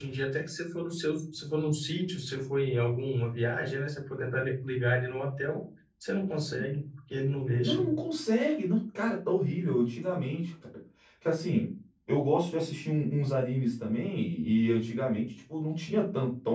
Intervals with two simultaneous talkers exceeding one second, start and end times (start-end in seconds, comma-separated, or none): none